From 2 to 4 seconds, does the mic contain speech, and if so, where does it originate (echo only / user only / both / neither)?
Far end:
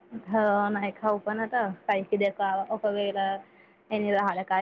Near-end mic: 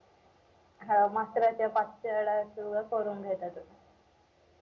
user only